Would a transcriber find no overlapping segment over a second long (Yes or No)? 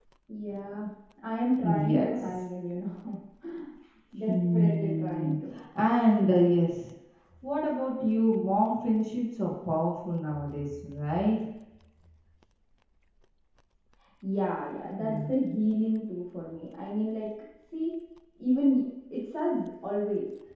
No